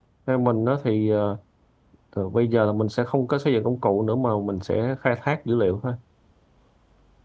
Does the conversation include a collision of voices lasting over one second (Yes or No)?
No